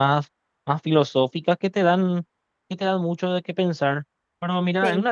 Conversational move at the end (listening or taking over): listening